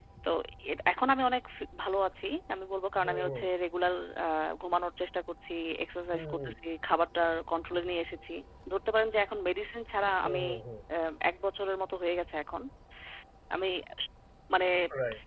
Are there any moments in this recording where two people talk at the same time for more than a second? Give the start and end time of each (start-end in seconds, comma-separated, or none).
none